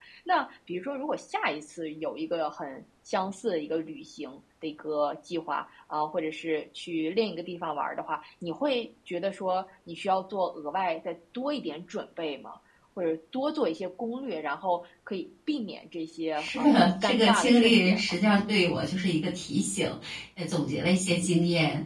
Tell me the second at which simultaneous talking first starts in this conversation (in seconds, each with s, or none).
16.4 s